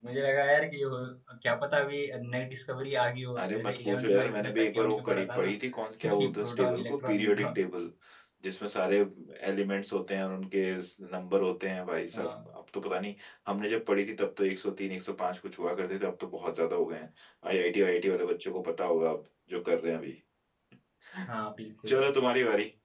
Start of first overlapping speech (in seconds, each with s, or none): 3.4 s